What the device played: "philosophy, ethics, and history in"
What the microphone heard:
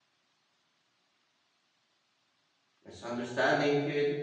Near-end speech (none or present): present